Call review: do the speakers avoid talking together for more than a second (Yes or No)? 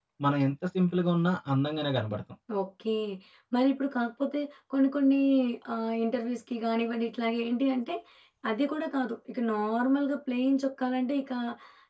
Yes